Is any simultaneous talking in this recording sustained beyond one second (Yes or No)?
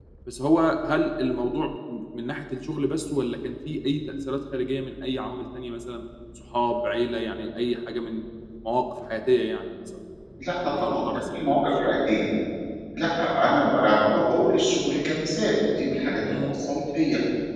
Yes